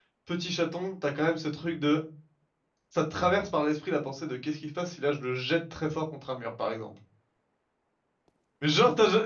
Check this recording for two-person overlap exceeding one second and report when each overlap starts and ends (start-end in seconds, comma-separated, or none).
none